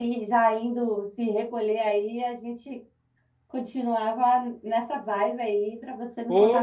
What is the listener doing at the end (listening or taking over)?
taking over